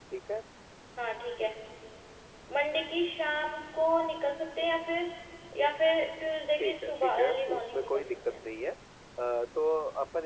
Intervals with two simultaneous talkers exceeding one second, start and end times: 6.6-8.3

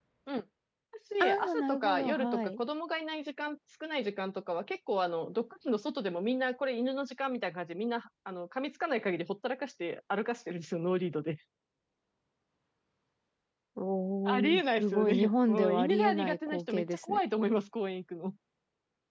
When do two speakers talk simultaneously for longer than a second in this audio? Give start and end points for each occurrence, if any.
1.2-2.6, 14.2-17.2

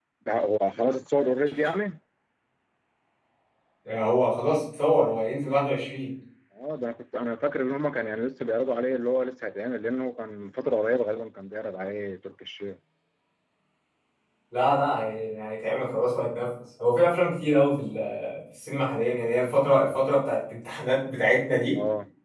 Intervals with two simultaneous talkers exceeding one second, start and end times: none

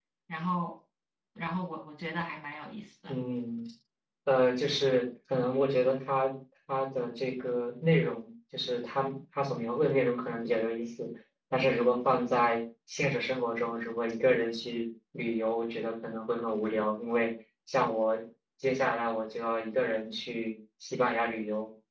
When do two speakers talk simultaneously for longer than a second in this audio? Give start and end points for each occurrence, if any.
none

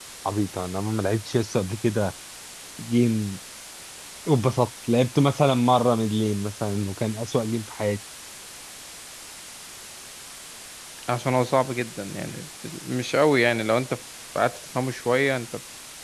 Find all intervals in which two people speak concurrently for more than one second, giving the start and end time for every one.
none

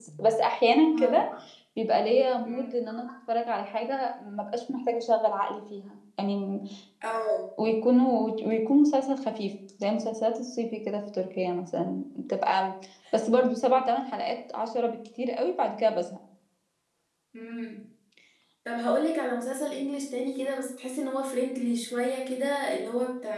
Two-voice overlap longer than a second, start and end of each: none

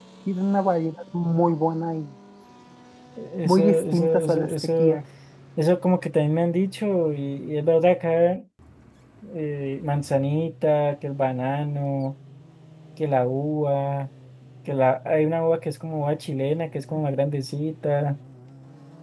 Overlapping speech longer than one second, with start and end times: 3.5-5.0

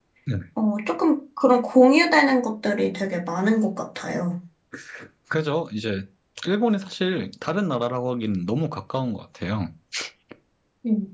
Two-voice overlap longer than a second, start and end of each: none

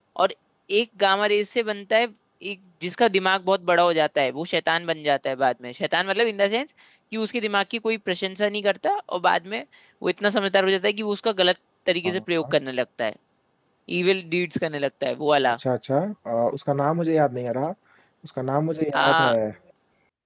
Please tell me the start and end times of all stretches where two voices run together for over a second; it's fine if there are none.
none

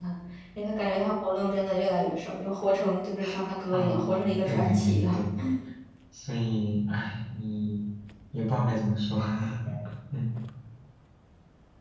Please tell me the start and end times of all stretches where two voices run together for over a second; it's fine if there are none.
3.7-5.2

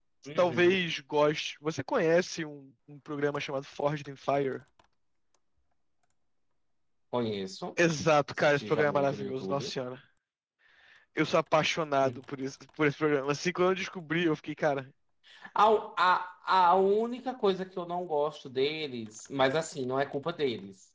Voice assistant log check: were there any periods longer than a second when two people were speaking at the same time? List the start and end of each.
8.4-9.7

